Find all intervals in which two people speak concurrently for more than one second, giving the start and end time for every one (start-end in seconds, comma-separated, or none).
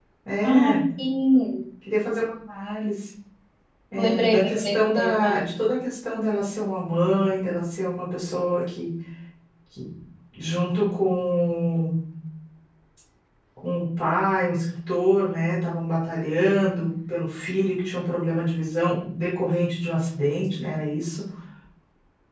4.0-5.4